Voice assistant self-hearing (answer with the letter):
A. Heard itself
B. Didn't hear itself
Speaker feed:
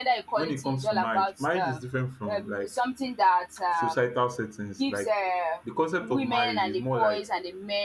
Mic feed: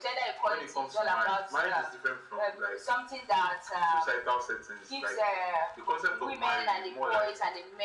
A